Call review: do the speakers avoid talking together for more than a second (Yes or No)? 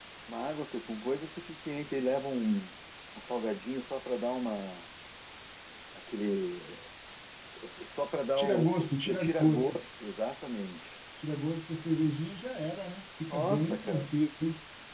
No